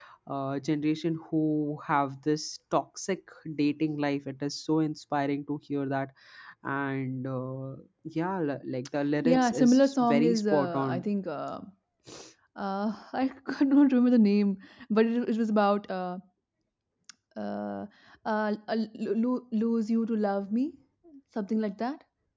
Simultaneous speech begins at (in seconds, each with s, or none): 9.2 s